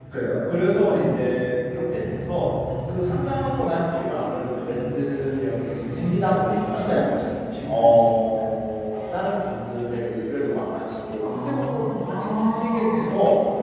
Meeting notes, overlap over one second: present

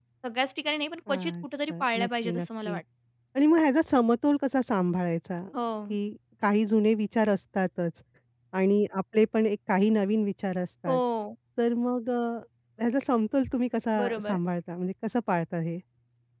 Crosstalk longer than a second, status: present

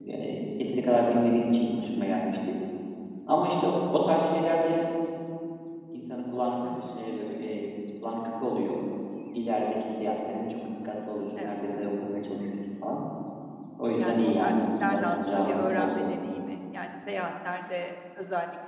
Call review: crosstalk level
present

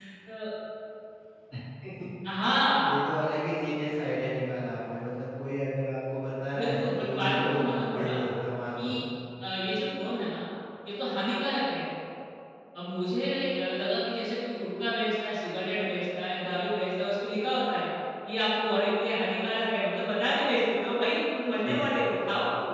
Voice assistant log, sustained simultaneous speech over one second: present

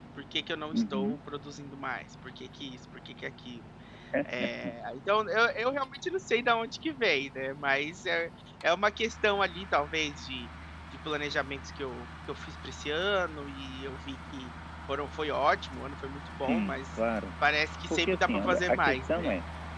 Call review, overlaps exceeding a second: present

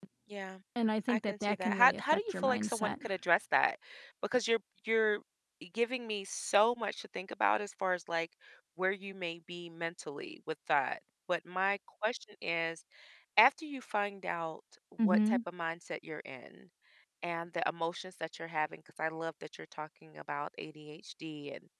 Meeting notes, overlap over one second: present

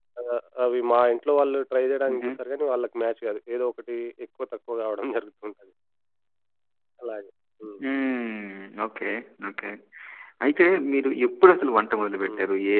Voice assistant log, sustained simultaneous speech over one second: none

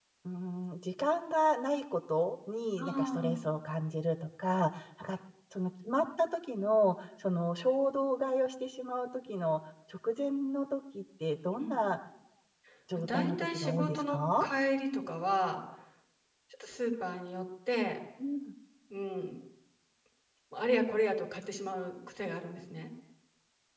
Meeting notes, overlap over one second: present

